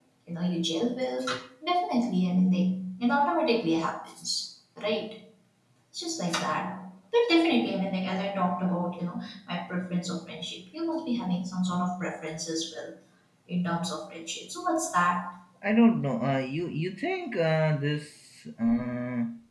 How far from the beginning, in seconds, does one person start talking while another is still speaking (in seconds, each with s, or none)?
none